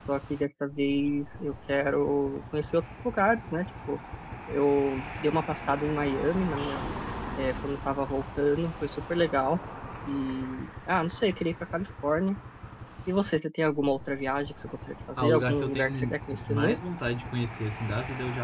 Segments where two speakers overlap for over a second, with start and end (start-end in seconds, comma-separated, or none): 15.2-16.8